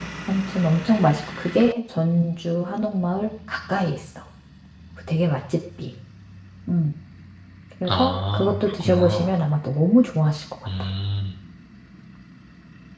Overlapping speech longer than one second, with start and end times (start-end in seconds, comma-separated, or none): 7.9-9.3